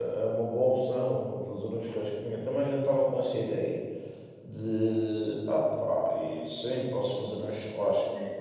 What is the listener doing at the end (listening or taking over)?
taking over